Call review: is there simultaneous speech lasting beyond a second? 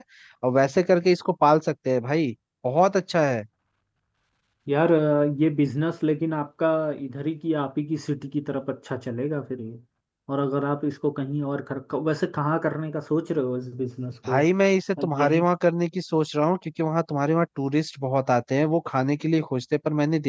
No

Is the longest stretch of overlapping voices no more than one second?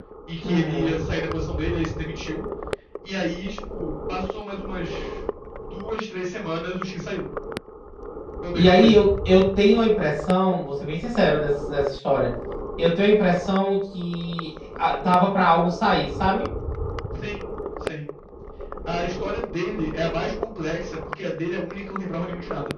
Yes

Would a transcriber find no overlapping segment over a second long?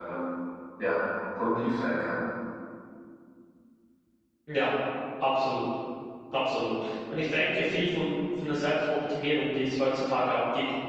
Yes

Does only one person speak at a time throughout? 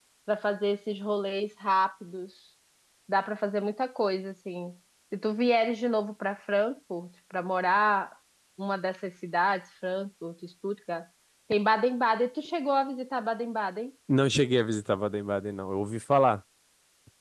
Yes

